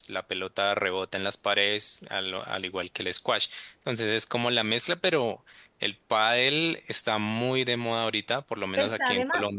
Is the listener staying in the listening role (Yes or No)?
No